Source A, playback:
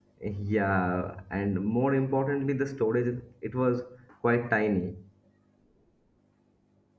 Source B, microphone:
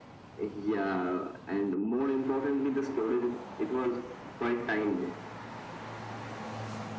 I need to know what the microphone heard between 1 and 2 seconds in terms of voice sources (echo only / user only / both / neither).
echo only